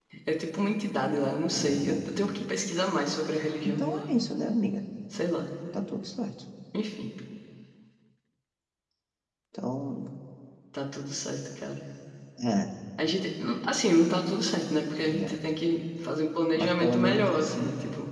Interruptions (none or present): present